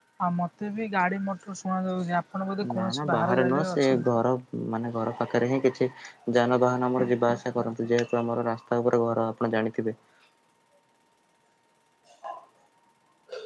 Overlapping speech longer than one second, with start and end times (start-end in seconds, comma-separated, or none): 2.7-4.1